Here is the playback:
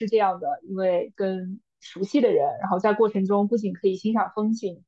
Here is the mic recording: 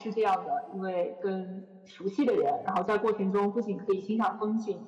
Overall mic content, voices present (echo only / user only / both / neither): echo only